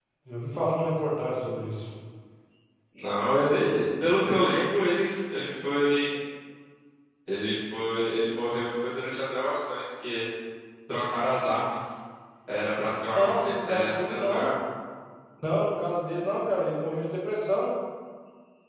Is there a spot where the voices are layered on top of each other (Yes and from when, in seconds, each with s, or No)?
Yes, from 13.2 s